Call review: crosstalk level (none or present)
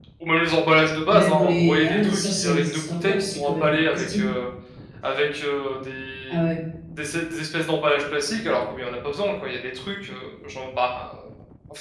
present